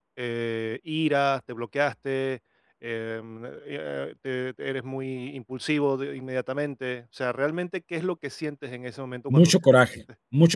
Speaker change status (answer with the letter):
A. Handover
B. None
A